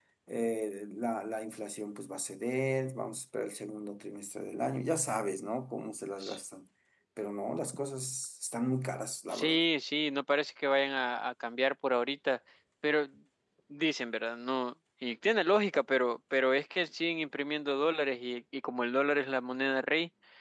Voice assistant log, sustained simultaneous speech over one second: none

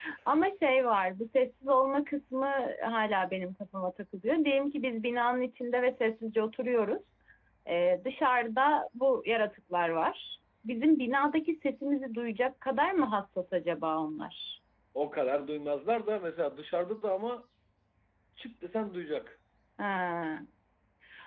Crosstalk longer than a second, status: none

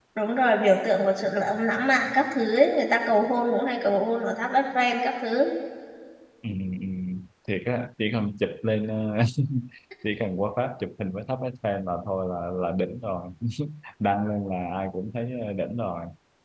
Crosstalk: none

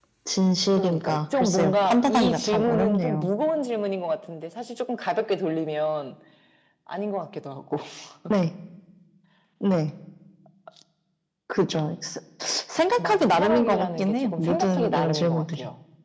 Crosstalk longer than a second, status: present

